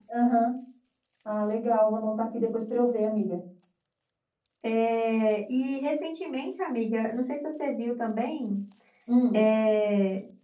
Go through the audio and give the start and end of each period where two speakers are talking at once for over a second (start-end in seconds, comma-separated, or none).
none